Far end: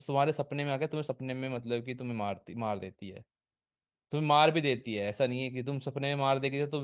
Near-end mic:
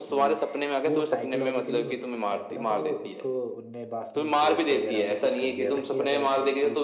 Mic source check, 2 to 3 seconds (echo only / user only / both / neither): both